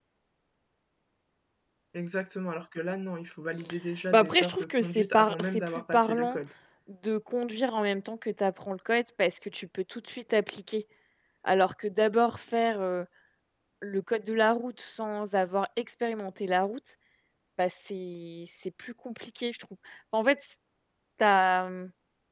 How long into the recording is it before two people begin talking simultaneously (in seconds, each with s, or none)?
4.1 s